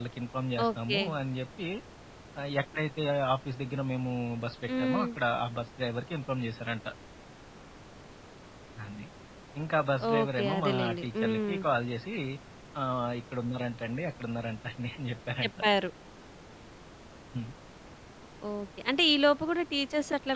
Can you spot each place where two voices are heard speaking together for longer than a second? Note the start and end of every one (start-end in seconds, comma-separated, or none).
10.1-11.5